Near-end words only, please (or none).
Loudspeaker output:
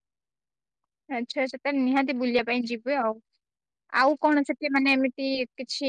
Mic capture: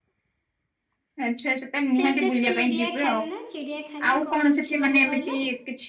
ସେଇଟା ଚିଡିଆଖାନା ଚିଡିଆଖାନା କଣ ଅଛି ମାନେ କହିଲ?